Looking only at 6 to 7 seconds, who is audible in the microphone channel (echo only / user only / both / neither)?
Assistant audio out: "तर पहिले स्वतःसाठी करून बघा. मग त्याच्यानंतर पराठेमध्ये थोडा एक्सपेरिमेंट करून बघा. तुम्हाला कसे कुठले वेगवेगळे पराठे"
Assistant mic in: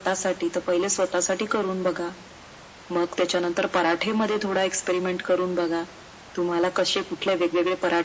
echo only